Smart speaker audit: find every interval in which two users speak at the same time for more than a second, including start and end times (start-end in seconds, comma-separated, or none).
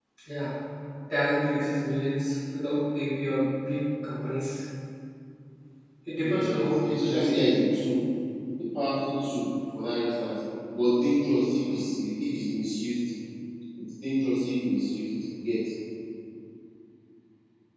6.2-7.4